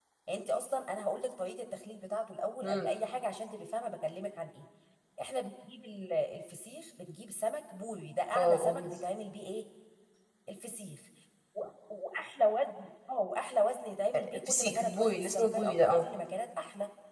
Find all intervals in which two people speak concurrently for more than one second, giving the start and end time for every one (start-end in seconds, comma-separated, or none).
14.3-16.1